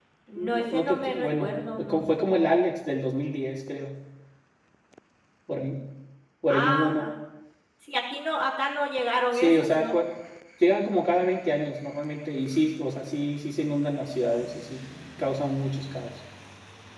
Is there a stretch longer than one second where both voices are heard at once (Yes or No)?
Yes